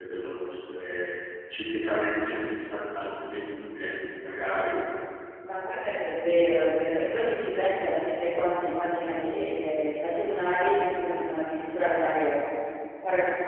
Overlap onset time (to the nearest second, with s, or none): none